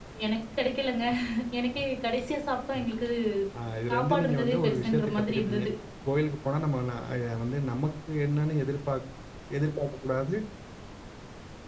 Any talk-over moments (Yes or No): Yes